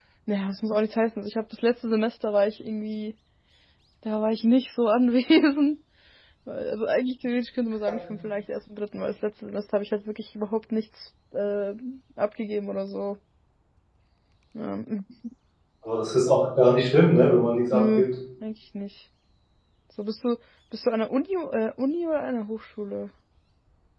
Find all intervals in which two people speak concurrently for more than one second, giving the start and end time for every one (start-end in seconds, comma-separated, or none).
none